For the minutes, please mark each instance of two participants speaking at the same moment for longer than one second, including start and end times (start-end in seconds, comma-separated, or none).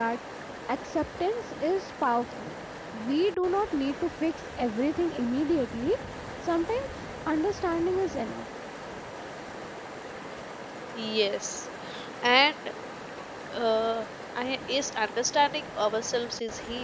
none